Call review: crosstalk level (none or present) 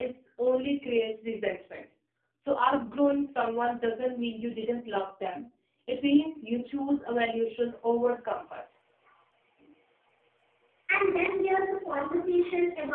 none